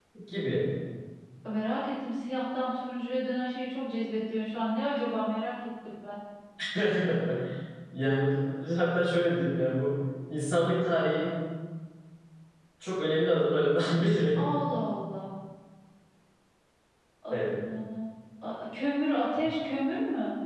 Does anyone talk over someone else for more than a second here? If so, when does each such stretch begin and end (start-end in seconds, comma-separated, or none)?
none